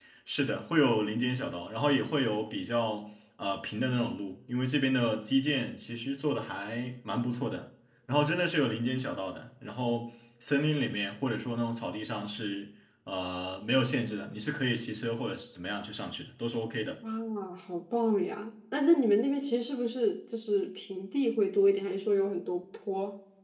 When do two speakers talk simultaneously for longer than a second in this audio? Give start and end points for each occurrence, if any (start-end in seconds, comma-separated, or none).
none